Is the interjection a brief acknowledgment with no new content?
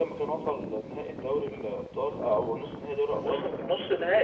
No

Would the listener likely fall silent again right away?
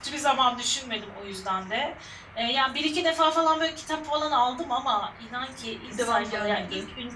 Yes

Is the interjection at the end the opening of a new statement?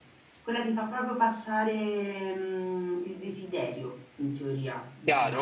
Yes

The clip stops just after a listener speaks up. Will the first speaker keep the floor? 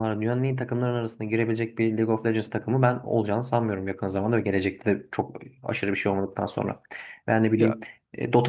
Yes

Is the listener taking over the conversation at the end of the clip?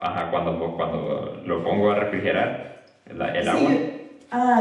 Yes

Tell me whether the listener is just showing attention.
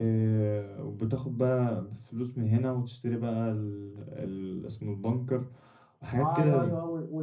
No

